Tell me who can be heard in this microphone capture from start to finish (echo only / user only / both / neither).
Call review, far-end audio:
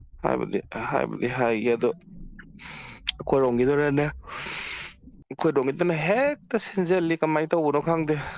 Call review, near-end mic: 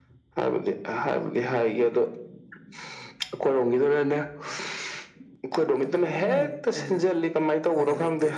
both